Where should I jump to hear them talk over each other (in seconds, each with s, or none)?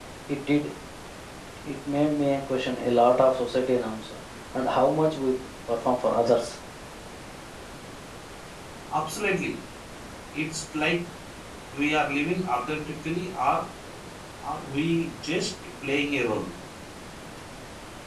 none